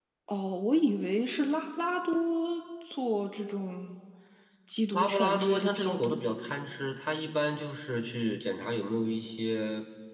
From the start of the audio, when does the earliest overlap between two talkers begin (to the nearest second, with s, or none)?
5 s